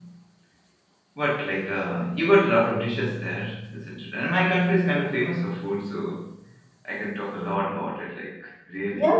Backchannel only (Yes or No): No